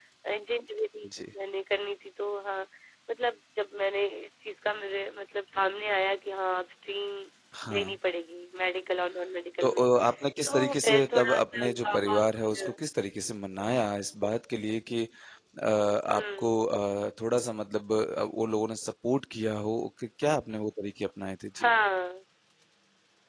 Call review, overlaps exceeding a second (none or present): present